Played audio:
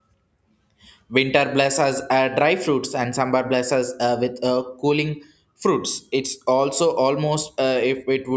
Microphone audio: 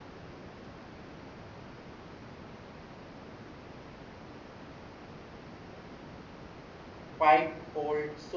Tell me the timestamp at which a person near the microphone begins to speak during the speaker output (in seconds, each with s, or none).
7.2 s